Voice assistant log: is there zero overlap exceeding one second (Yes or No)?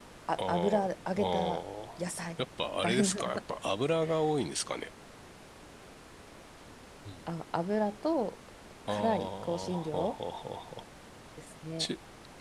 No